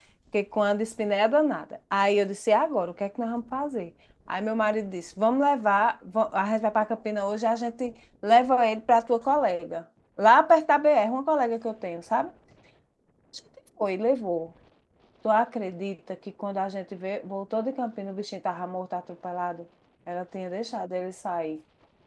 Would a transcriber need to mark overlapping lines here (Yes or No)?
No